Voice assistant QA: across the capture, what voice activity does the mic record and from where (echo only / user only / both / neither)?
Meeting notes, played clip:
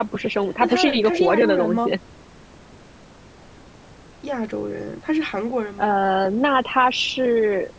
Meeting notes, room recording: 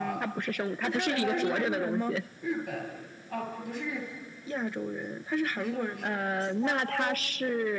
both